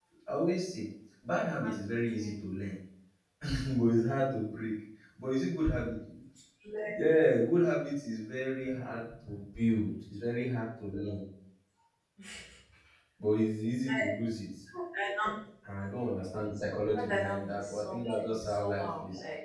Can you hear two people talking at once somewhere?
Yes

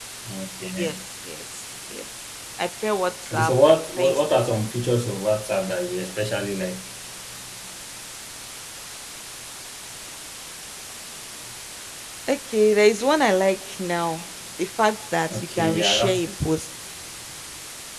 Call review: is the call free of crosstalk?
No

